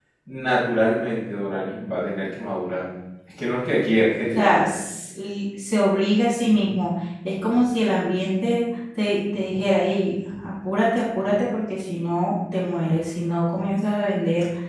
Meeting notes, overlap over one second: none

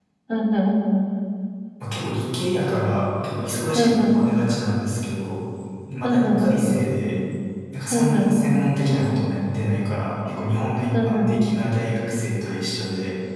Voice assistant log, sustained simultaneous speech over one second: none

